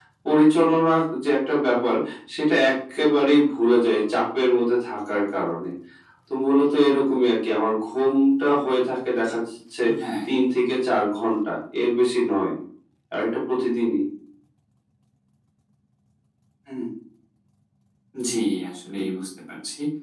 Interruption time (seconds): none

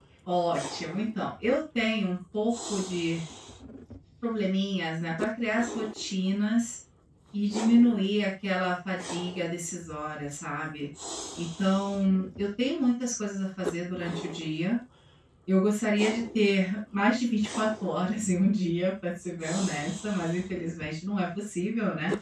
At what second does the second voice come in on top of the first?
none

